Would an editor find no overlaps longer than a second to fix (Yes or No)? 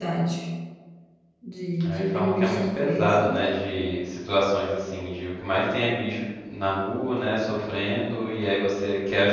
No